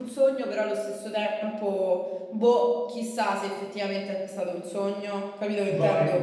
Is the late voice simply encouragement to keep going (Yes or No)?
No